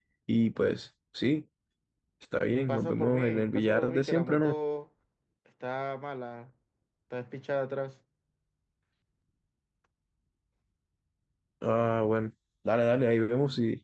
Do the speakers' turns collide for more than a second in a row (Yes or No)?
Yes